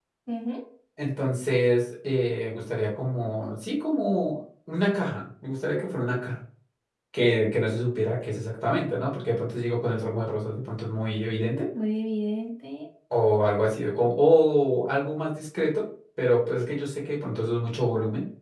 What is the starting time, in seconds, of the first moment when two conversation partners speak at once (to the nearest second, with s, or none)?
none